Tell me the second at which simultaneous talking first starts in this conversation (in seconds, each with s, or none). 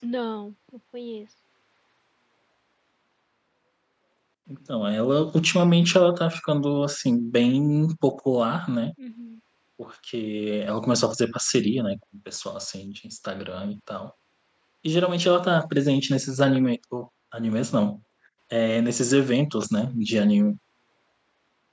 none